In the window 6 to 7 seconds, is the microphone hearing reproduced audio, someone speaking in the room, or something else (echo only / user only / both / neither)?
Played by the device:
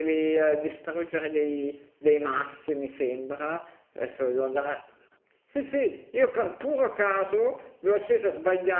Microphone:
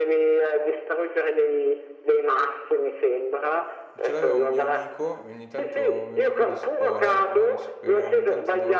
both